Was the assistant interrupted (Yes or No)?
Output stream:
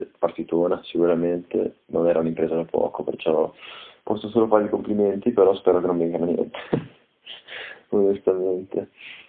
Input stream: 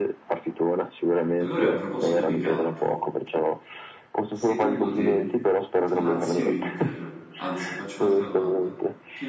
Yes